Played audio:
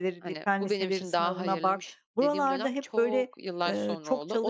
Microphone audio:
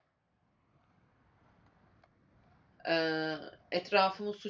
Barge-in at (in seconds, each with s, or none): 2.9 s